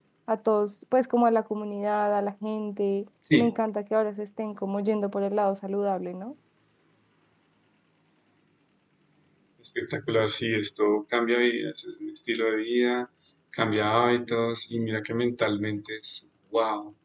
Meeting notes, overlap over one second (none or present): none